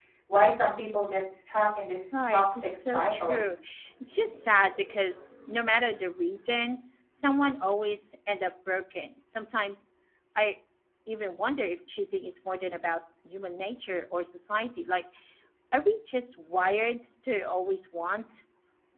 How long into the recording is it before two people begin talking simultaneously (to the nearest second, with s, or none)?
2 s